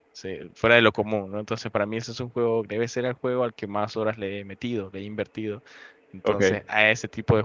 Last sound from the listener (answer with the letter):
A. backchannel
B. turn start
A